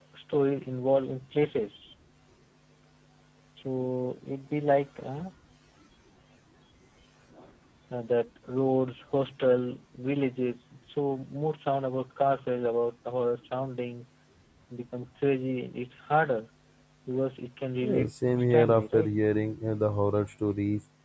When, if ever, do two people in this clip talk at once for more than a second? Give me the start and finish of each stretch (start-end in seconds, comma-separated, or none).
17.9-19.1